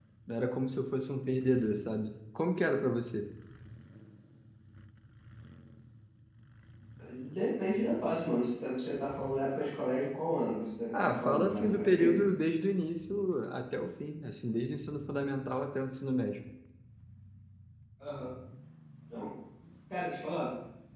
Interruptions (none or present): present